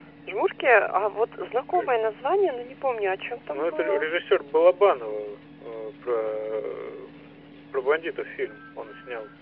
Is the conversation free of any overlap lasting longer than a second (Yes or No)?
Yes